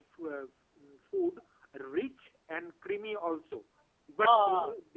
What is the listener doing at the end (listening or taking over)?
listening